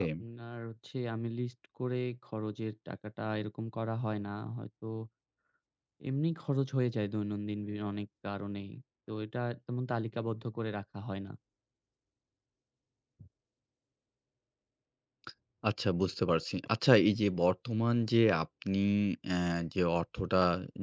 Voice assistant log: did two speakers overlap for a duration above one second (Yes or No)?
No